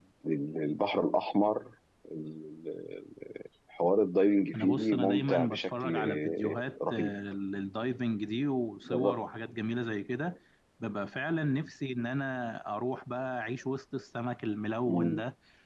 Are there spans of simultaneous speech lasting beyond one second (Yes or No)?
Yes